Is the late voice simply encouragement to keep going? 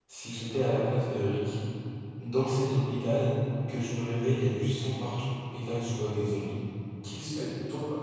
Yes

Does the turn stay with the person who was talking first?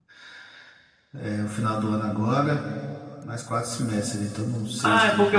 No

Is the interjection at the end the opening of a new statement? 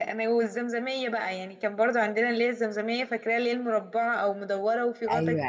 Yes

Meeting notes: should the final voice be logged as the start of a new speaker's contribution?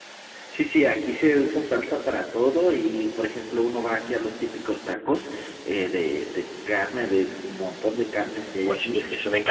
Yes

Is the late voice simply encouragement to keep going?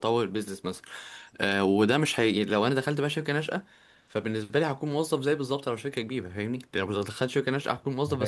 No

